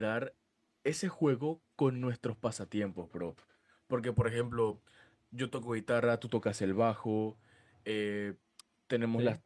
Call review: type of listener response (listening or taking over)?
listening